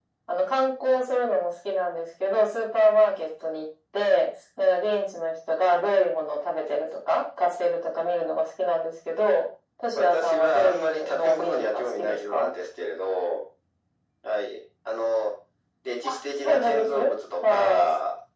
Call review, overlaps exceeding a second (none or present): present